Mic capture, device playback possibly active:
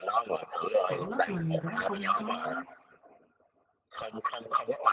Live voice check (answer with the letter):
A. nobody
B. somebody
B